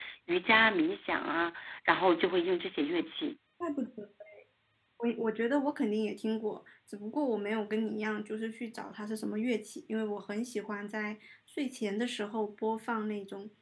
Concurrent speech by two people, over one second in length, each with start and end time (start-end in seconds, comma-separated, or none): none